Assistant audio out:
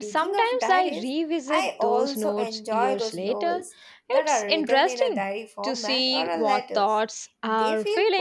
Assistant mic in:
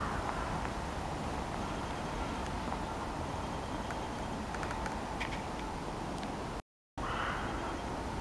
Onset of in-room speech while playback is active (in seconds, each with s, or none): none